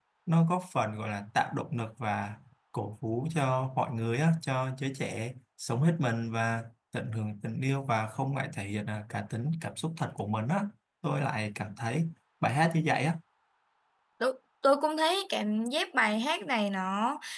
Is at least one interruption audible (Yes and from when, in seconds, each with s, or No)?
No